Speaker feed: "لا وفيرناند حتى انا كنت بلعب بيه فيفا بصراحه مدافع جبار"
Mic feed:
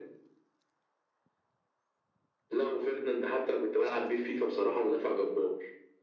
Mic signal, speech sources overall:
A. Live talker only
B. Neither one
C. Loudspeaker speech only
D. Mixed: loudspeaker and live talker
D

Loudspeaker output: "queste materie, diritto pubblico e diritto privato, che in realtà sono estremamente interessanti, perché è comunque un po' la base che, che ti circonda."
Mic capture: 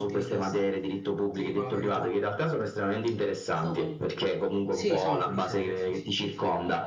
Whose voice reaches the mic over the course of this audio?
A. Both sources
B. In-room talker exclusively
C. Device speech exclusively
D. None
A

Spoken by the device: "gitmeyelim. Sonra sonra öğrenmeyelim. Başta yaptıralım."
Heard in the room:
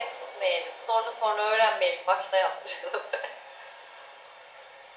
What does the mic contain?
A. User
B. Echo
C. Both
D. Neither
B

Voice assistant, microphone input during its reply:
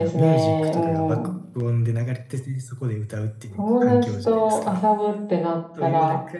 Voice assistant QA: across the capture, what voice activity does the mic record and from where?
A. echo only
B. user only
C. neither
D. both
D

